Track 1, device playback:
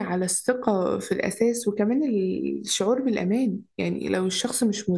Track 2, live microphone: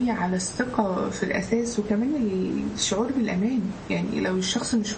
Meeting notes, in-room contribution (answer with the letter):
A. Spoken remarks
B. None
B